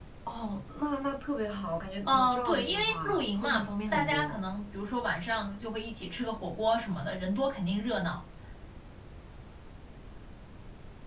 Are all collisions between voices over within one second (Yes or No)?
No